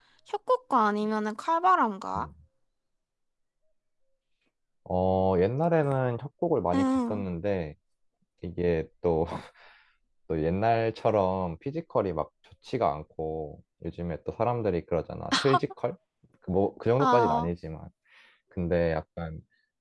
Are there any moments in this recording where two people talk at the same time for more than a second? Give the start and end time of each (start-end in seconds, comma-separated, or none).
none